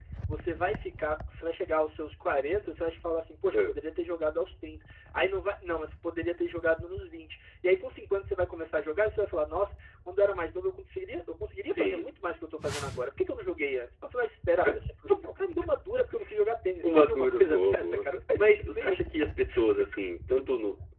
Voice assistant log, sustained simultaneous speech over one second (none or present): present